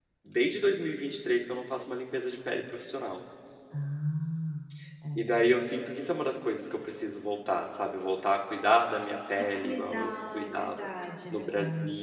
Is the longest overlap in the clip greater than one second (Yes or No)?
Yes